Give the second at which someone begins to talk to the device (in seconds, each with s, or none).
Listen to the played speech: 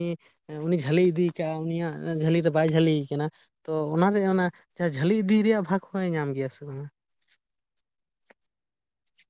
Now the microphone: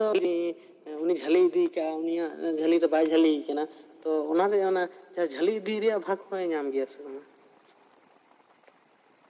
none